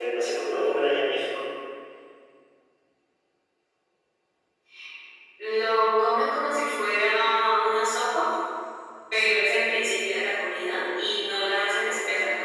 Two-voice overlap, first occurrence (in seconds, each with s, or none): none